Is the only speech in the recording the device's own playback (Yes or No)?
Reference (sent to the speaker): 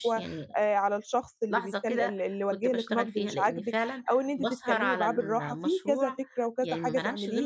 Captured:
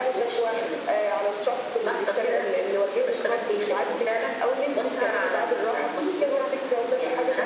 Yes